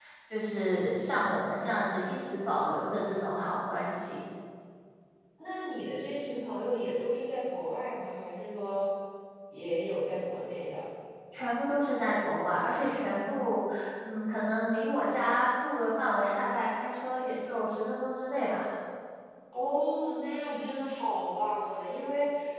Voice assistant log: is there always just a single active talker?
Yes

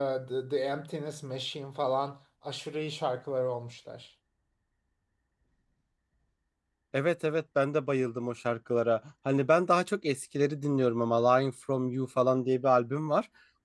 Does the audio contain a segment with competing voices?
No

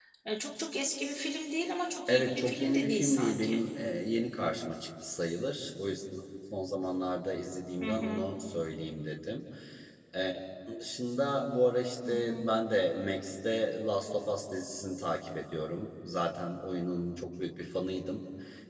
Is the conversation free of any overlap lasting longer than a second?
No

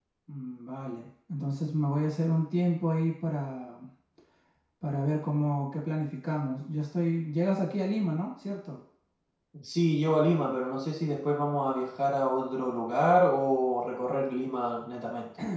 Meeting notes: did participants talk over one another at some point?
No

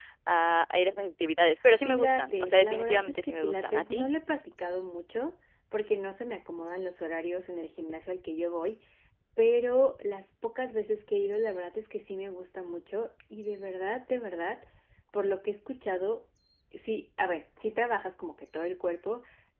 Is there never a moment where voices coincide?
No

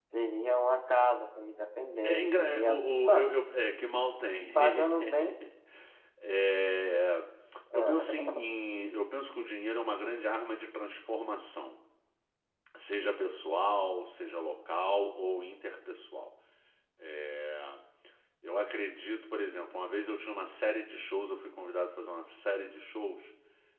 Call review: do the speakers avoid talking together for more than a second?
No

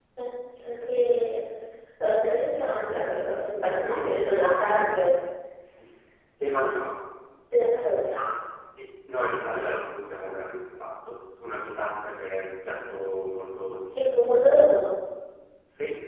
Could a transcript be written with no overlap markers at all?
No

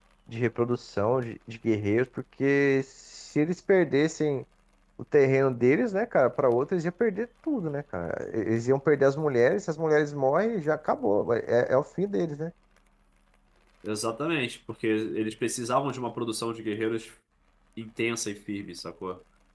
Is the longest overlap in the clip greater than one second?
No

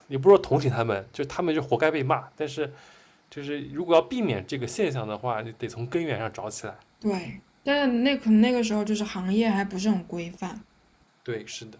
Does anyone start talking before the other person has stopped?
No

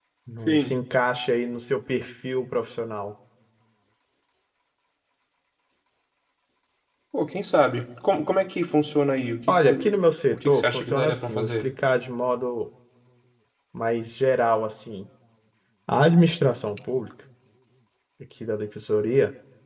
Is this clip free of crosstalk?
No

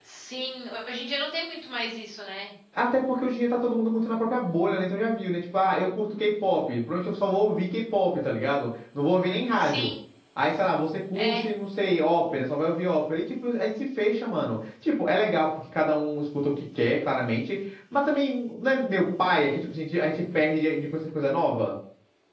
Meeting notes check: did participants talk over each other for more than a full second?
No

